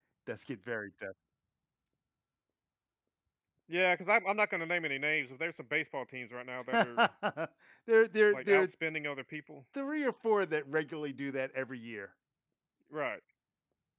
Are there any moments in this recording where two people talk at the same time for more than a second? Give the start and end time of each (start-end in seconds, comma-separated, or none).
none